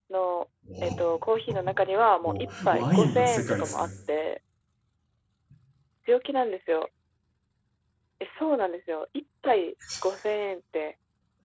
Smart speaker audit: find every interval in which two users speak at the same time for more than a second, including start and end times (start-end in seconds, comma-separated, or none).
2.2-3.9